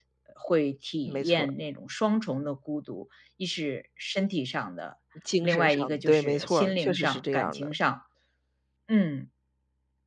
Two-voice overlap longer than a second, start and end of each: 5.4-7.7

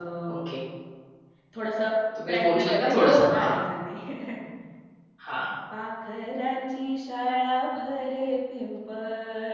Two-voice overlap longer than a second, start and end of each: 2.3-3.5

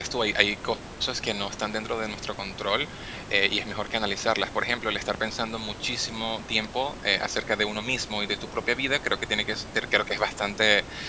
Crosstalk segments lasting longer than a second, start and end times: none

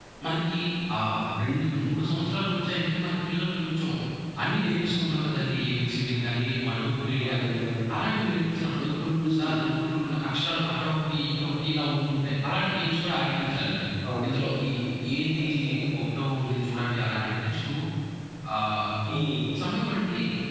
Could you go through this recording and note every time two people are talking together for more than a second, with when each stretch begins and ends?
none

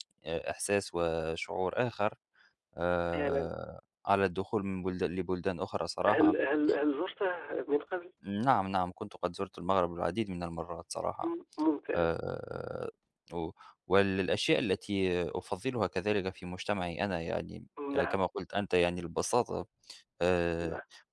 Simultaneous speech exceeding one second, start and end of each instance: none

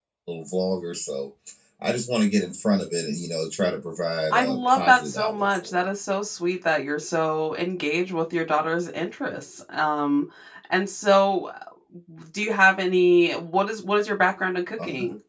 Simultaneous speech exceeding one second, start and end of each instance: 4.3-5.8

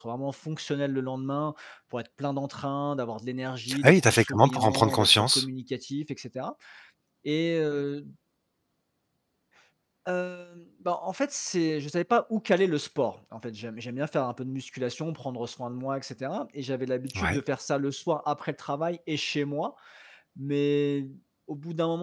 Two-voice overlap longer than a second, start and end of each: 3.8-5.4

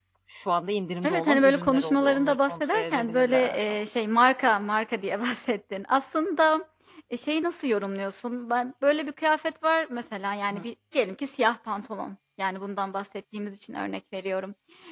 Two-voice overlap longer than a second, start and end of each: 1.0-3.8

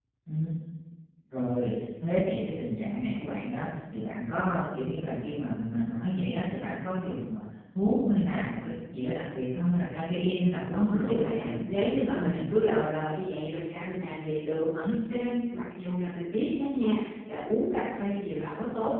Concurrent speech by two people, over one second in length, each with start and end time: 10.7-12.4

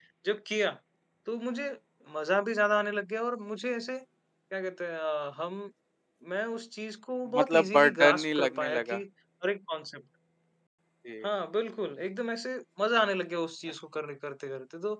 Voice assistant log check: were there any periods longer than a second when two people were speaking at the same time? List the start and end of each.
7.4-9.0

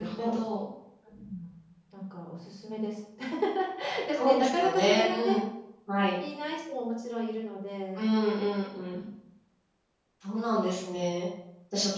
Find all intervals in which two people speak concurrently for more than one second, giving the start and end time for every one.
4.1-5.4

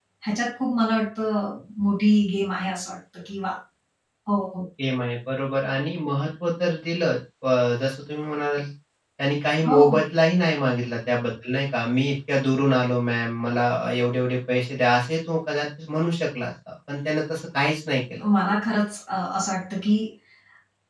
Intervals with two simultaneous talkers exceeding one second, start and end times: none

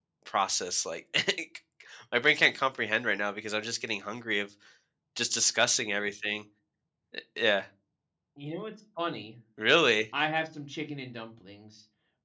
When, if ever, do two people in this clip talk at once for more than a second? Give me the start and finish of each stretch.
none

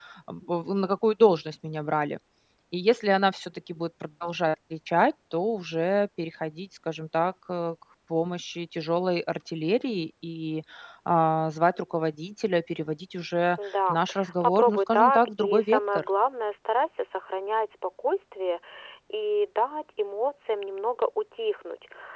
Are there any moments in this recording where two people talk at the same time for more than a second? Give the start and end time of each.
14.4-16.0

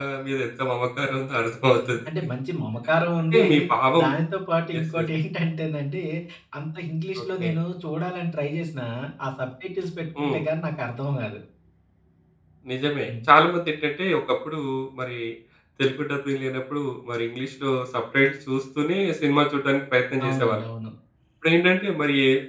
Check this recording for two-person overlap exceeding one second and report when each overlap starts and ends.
none

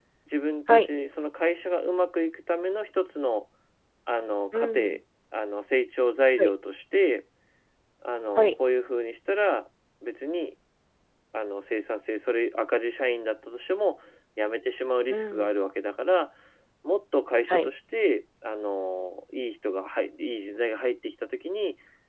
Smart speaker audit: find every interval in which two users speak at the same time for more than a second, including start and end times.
none

